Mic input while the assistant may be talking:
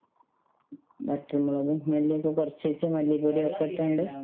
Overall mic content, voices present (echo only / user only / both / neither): both